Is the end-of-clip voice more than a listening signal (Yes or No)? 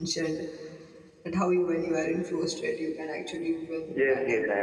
Yes